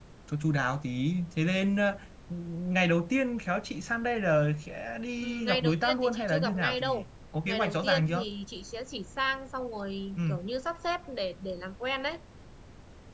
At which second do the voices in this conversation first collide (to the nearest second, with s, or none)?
5 s